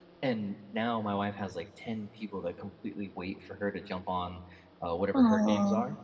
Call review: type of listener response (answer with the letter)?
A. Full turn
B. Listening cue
B